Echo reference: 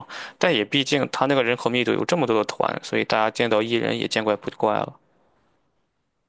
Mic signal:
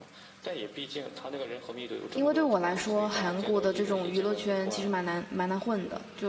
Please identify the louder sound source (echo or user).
user